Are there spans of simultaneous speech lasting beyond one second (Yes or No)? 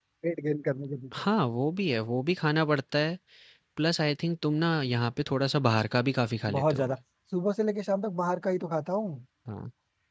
No